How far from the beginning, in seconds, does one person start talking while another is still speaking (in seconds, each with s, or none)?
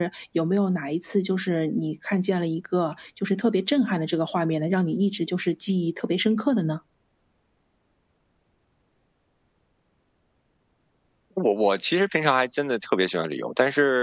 none